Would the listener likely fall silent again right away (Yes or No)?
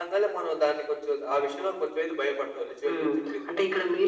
No